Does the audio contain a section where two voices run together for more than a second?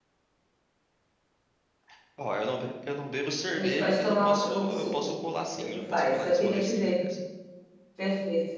Yes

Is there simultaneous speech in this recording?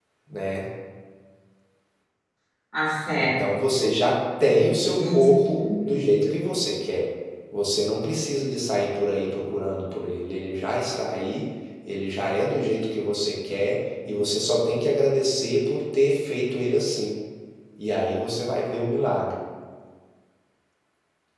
Yes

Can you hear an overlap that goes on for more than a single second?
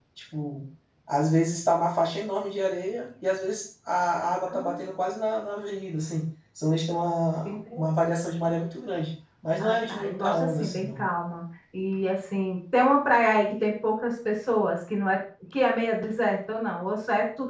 Yes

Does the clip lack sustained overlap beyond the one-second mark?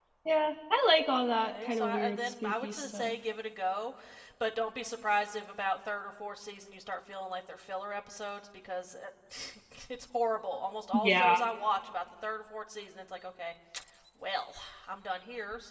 No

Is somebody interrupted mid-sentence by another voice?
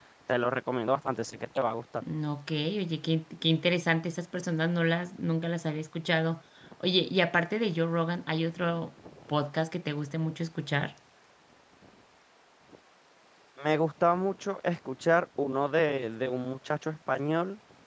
No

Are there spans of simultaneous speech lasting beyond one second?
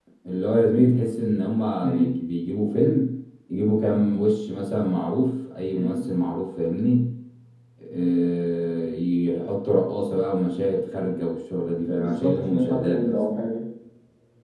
Yes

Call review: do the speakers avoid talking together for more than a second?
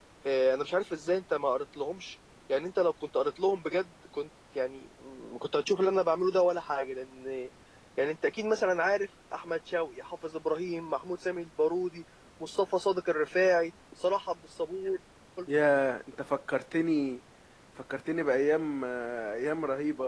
Yes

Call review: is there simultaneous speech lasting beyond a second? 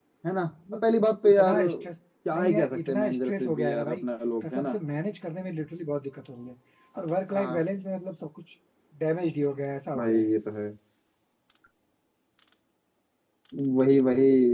Yes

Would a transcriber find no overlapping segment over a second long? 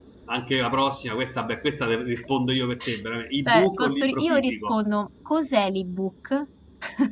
No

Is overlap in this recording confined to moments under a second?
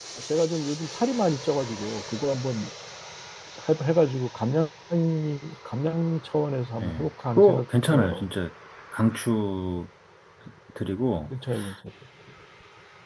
No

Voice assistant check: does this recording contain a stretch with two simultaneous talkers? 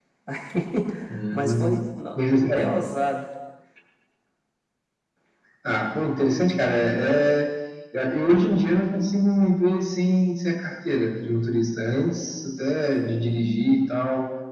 Yes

